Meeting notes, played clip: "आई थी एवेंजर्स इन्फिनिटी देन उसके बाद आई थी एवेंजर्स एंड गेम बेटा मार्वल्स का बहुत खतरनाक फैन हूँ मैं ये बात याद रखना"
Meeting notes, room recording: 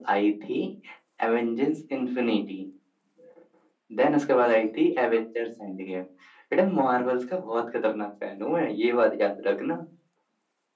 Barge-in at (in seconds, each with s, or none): none